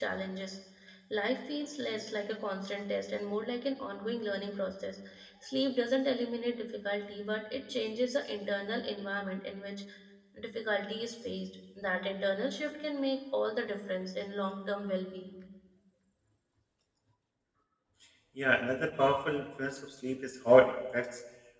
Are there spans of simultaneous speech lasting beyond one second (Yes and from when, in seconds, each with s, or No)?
No